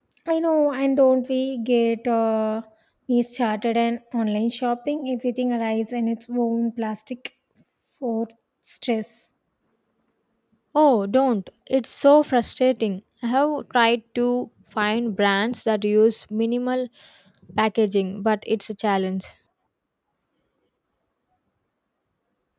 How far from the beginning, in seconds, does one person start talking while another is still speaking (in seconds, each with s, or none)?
none